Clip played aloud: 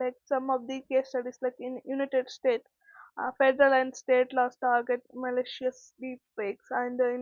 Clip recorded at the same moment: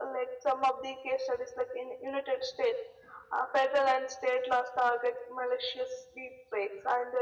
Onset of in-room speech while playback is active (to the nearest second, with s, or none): none